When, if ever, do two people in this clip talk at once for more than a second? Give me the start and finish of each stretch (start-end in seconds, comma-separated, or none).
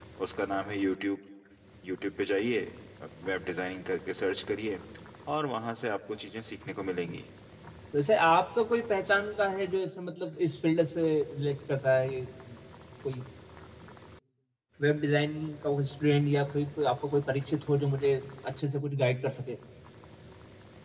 none